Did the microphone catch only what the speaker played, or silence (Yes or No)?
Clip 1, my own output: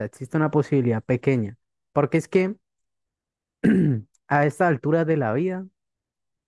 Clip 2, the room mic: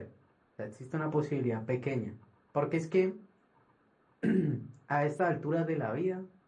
Yes